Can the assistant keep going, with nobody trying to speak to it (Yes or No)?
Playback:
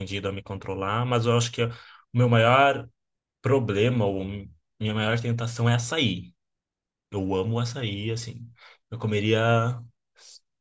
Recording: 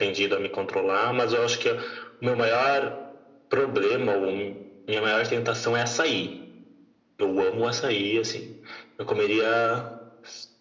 Yes